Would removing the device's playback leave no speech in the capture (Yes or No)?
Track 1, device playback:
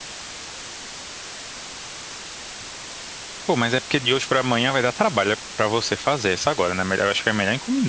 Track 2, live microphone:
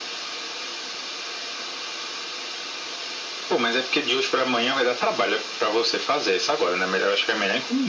Yes